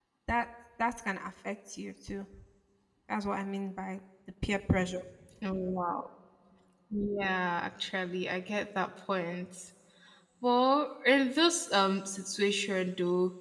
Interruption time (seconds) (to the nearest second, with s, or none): none